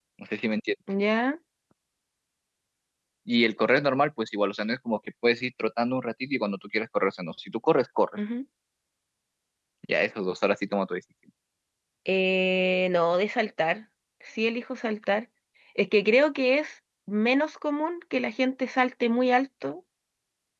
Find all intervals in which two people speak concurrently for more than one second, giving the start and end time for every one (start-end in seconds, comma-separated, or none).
none